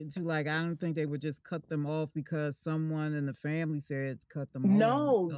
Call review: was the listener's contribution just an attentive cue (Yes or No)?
No